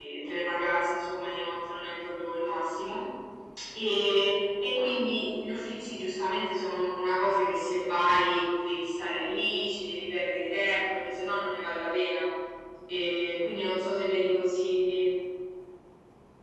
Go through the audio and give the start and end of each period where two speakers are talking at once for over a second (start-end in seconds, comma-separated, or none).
none